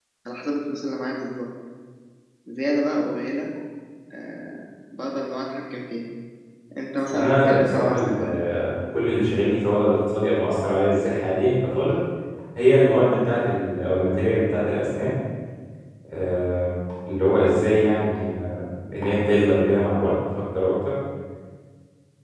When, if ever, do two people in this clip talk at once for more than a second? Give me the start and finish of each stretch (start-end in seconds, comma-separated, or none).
7.1-8.4